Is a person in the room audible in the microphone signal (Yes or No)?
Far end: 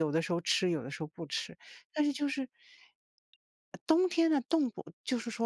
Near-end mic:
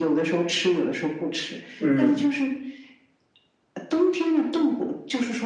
Yes